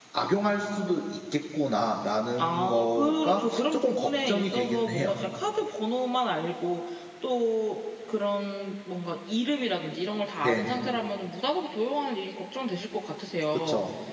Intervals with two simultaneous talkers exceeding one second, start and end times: 2.4-5.1

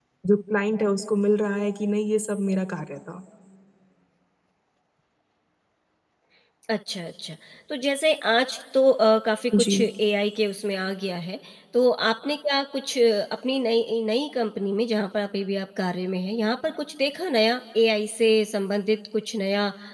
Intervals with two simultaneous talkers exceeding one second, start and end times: none

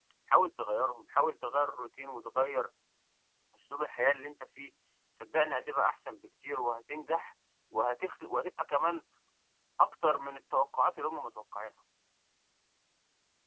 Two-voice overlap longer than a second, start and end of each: none

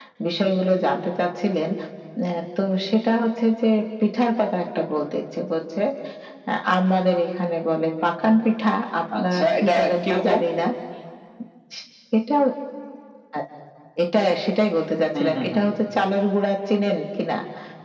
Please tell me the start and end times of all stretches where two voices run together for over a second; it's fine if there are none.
9.2-10.4

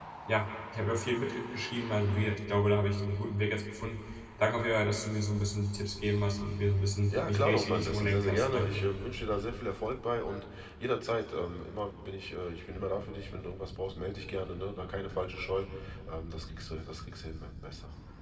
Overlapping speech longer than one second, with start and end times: 7.1-8.9

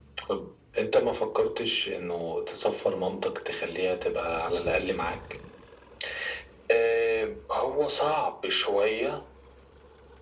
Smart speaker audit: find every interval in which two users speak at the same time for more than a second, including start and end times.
none

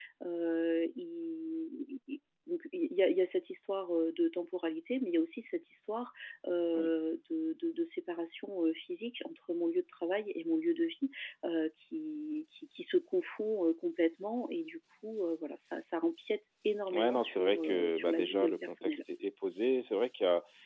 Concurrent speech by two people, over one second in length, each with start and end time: 16.9-19.0

